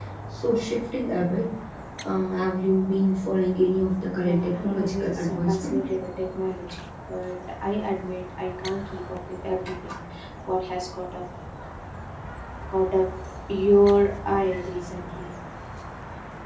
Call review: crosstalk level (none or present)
present